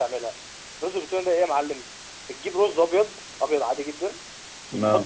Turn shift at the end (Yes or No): No